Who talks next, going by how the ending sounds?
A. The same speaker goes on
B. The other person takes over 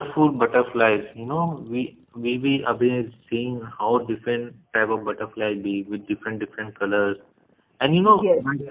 A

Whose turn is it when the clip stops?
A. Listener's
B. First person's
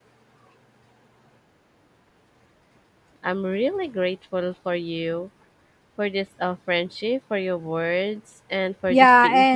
A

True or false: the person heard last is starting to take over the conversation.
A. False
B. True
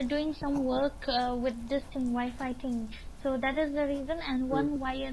A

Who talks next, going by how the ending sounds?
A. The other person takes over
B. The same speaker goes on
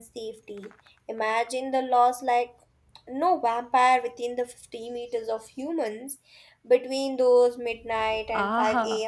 A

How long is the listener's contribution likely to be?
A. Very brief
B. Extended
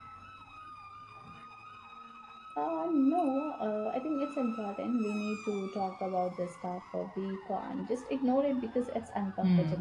B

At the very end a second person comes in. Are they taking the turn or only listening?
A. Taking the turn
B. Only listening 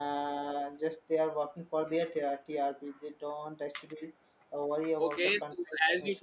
A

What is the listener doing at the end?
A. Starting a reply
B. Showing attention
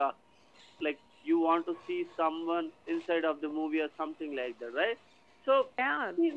A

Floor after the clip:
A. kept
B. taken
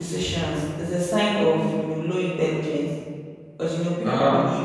A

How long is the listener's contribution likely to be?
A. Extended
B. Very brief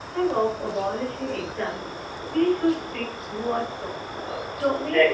B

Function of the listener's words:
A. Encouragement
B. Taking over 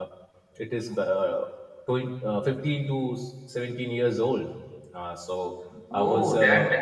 B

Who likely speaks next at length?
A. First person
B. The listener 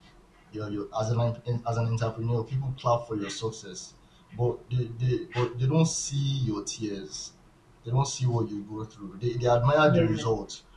A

